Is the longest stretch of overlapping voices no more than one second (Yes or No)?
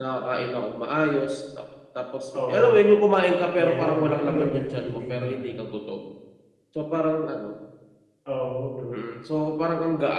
No